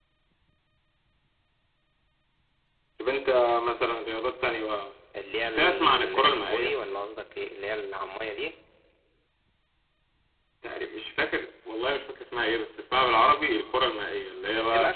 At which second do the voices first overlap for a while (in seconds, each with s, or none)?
5.4 s